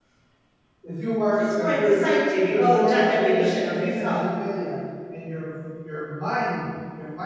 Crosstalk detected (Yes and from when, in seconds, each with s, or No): Yes, from 1.4 s